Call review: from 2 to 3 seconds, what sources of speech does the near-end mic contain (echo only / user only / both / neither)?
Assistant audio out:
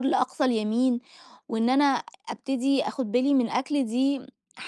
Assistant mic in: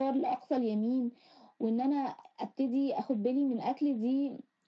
echo only